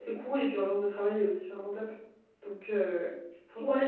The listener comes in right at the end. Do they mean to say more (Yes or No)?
Yes